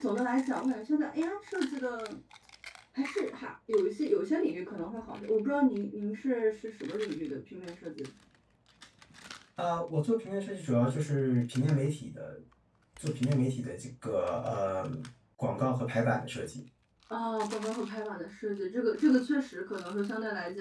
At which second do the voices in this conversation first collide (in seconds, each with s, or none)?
none